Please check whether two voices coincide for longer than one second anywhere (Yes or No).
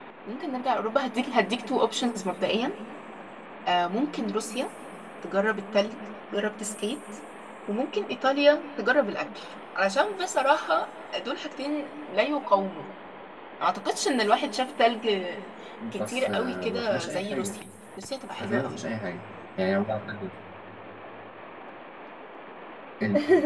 Yes